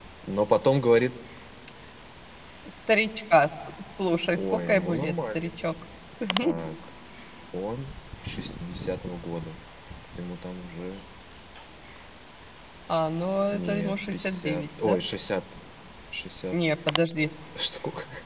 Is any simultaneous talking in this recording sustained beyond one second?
Yes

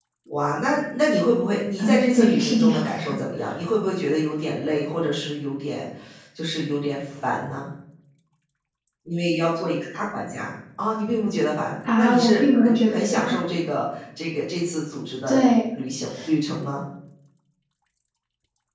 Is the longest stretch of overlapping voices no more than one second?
No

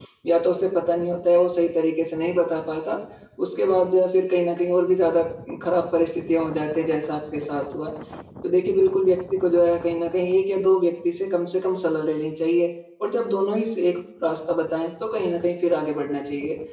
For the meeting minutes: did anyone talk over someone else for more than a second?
No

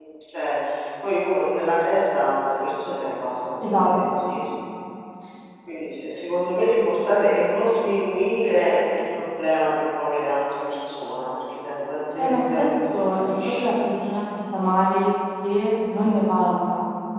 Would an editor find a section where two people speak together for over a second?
Yes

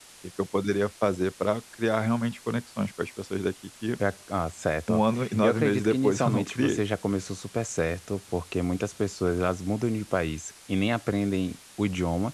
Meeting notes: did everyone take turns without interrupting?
No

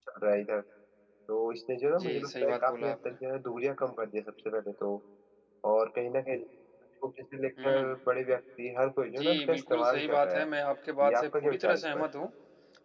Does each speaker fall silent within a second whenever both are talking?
No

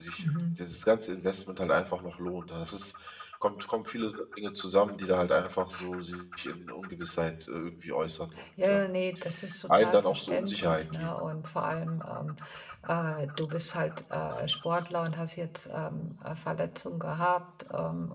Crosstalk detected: Yes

